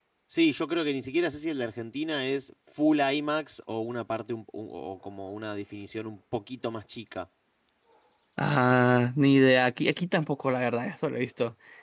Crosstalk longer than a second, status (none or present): none